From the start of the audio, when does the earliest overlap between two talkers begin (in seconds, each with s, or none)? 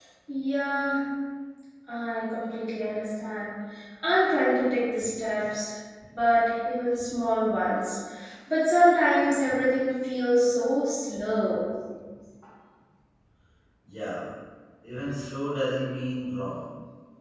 none